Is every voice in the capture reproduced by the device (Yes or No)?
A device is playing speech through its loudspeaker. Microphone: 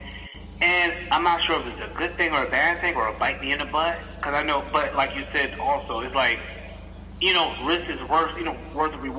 Yes